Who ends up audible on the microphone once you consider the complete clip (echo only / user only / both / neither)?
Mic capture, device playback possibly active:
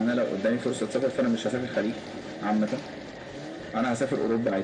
echo only